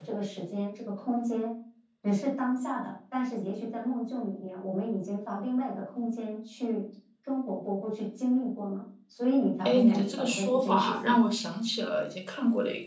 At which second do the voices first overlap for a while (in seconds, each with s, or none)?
9.7 s